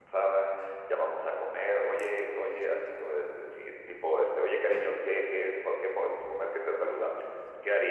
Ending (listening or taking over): taking over